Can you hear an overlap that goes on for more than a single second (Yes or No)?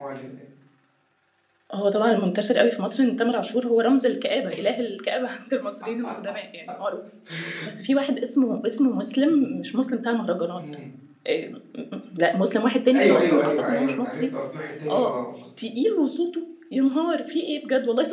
Yes